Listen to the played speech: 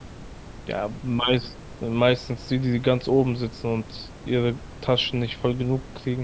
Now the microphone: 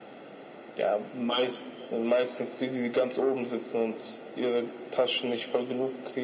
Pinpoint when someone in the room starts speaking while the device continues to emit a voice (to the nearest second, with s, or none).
none